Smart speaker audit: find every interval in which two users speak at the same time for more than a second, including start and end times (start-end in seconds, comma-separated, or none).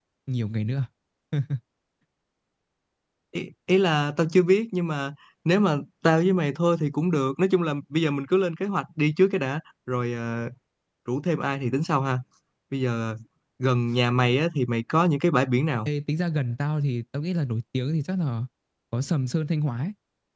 none